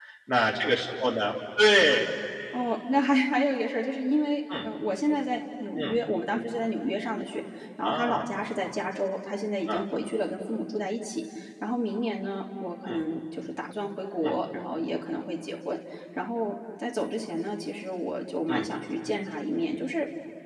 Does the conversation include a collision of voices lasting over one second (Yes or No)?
No